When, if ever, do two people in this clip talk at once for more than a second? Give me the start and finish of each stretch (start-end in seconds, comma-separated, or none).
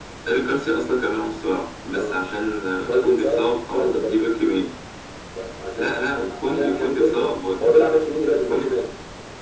2.9-4.3, 5.8-7.7